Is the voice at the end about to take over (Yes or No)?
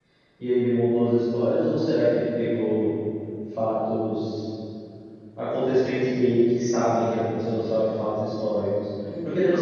No